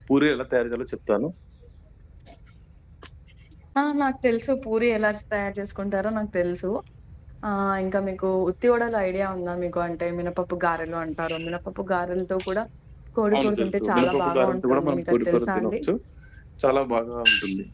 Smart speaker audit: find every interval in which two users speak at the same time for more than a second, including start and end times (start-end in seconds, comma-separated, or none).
13.3-15.7